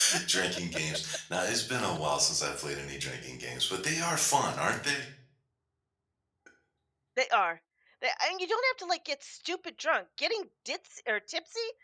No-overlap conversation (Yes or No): Yes